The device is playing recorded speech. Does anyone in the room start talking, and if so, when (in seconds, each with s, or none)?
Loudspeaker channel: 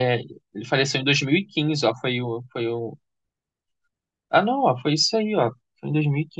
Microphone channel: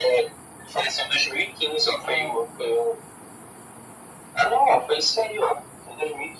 2.0 s